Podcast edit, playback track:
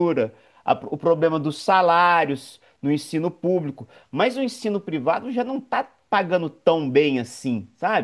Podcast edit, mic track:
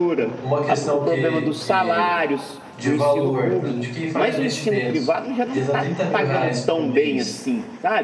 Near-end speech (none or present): present